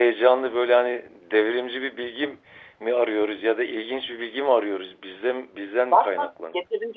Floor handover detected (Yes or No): Yes